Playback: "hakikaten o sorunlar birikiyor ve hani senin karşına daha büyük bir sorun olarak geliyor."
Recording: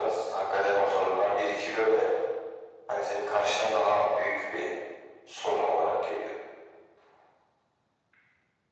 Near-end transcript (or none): none